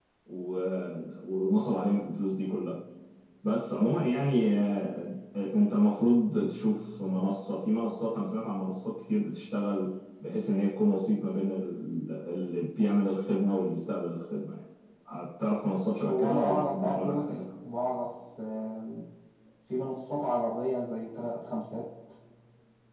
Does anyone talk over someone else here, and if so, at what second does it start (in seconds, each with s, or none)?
16.0 s